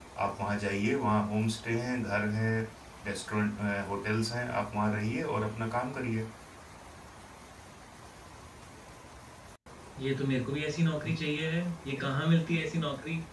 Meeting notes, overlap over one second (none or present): none